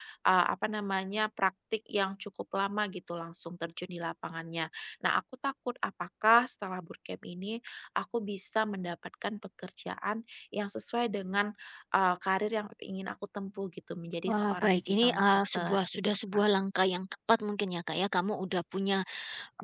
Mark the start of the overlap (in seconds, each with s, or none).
14.3 s